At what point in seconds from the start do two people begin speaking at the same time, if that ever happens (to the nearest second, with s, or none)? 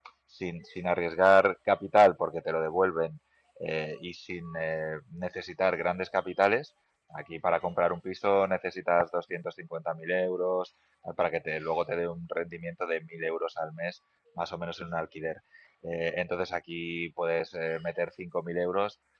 none